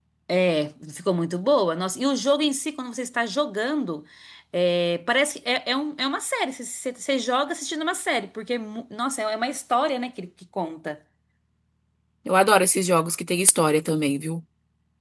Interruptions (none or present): none